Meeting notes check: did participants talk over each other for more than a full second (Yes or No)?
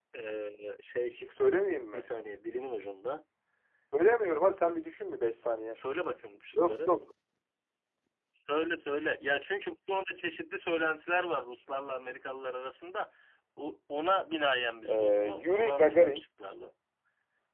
Yes